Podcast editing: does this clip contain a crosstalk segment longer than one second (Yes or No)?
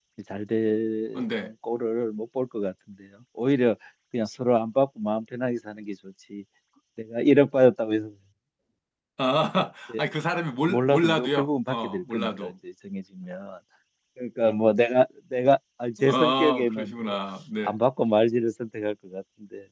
Yes